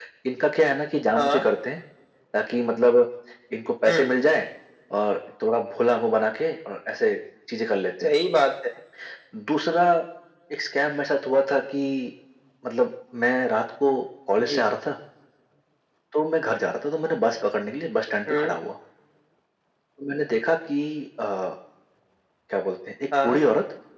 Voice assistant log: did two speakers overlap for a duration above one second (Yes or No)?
No